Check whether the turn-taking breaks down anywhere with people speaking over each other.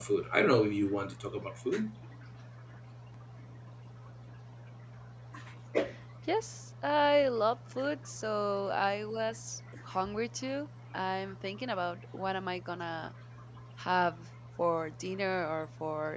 No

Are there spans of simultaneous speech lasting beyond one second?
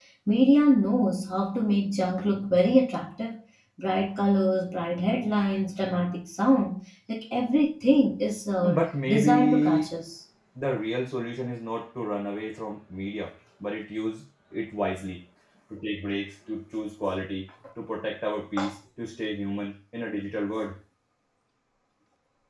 Yes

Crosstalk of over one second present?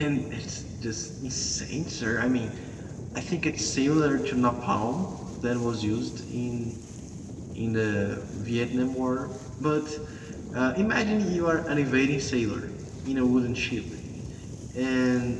No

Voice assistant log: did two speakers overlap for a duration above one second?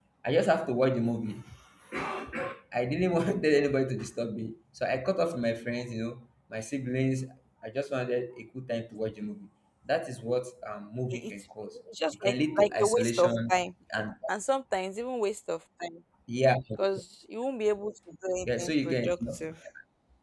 Yes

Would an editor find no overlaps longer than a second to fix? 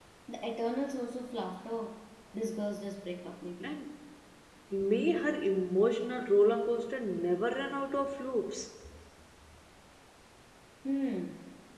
Yes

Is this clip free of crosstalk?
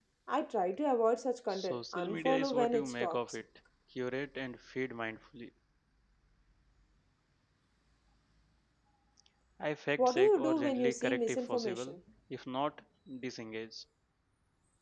No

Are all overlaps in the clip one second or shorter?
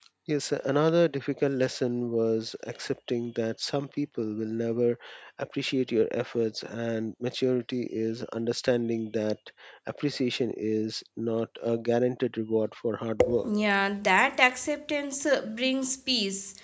Yes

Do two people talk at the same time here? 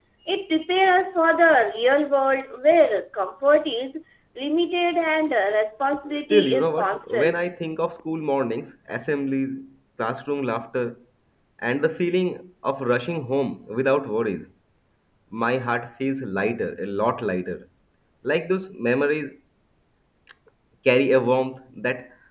Yes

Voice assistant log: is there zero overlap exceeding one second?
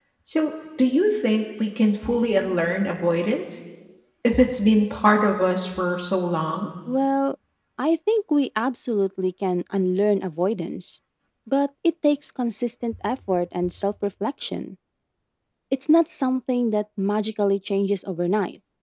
Yes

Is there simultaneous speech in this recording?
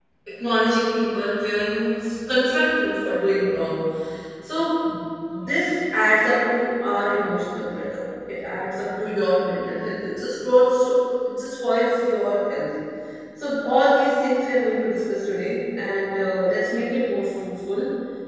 No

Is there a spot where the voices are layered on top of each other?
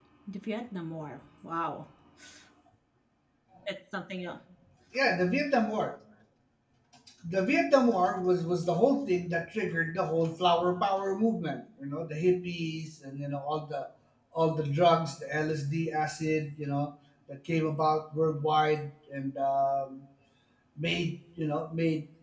No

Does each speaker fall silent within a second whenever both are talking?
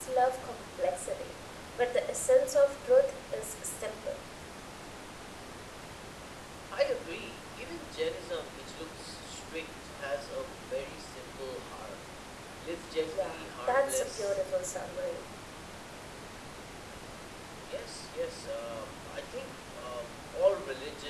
No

